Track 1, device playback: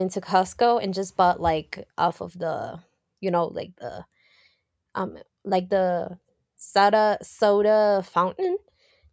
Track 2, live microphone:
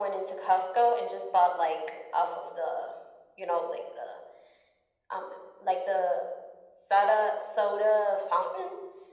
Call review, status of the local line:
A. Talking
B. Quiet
B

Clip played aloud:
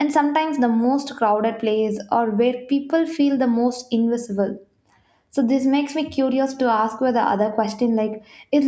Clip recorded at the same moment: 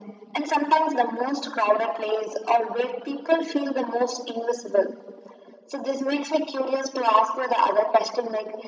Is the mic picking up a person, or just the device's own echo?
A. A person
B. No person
B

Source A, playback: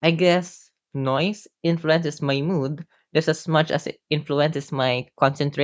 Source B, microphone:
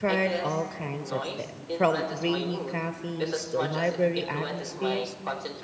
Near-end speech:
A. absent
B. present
B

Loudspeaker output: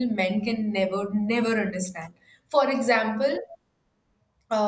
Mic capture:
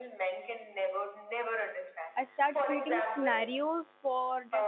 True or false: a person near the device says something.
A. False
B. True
B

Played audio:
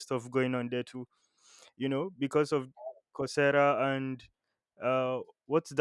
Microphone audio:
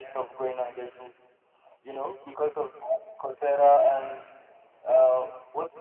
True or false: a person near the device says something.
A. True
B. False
B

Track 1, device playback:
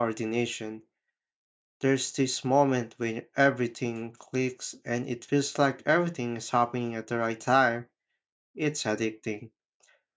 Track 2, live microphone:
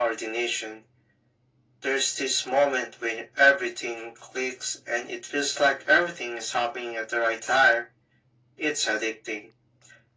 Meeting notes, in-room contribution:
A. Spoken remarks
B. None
B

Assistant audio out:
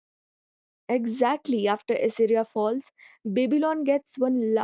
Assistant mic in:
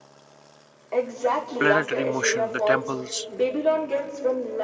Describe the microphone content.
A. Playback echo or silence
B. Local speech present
B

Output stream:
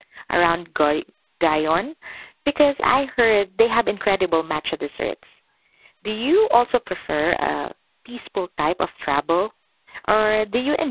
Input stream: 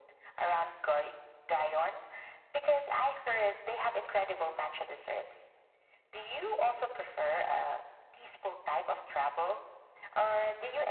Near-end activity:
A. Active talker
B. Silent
B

